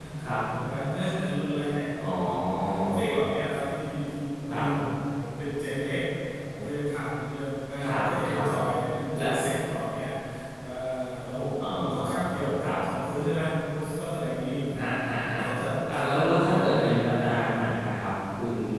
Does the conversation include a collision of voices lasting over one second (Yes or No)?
Yes